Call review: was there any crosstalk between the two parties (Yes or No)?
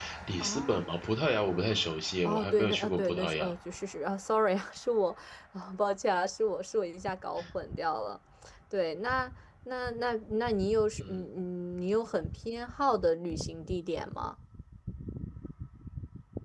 Yes